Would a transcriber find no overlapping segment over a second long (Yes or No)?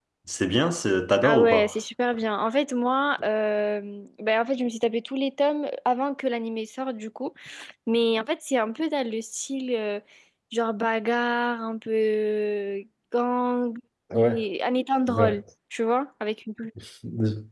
Yes